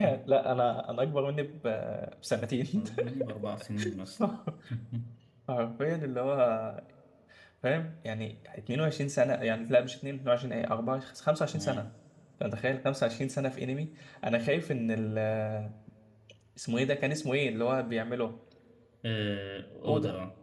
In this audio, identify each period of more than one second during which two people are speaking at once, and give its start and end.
none

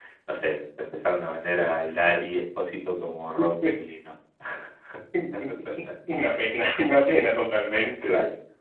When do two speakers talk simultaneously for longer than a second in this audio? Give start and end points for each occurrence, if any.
none

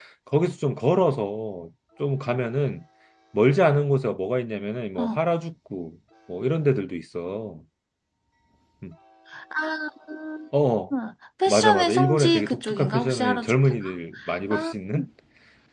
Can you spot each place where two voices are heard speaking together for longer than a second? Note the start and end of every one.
11.5-13.5

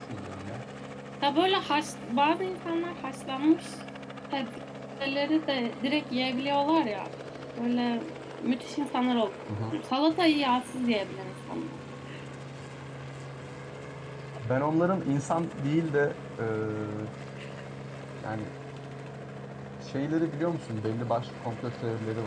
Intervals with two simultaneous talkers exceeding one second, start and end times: none

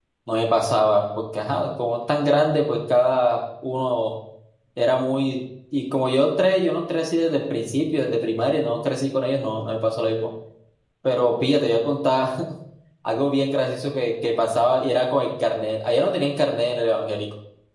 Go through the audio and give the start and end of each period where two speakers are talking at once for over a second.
none

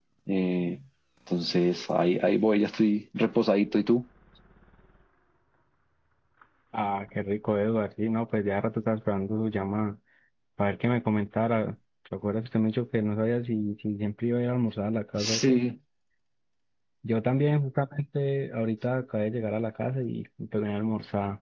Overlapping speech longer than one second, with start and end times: none

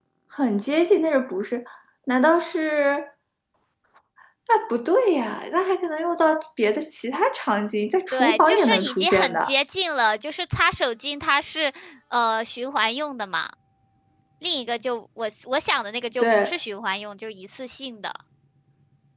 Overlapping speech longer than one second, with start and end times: 8.1-9.5

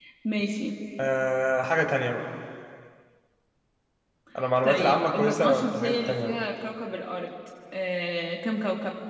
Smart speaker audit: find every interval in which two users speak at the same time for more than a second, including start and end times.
4.6-6.4

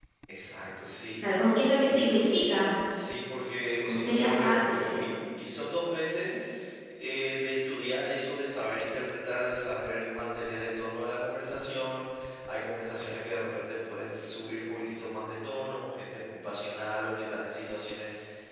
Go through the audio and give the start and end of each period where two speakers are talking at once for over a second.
3.9-5.1

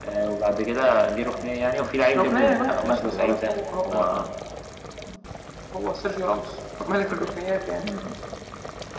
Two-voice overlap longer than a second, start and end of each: 2.2-3.4

